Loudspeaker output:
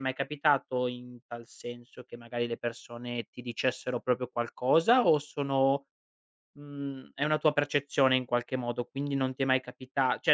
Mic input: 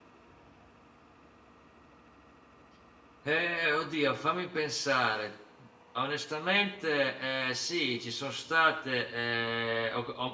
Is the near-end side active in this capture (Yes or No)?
Yes